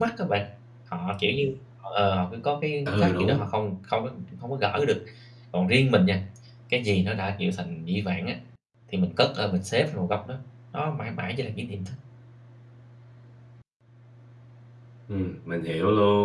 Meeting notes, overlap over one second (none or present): none